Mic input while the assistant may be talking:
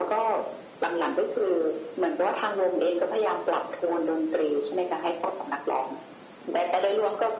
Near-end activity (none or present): none